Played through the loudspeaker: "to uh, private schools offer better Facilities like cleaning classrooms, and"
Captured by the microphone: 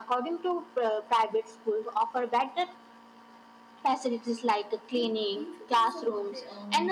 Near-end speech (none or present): present